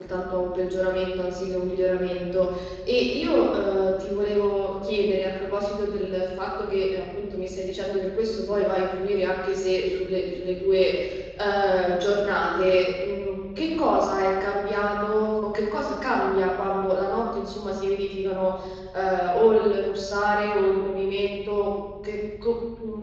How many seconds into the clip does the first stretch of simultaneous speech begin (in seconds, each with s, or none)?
none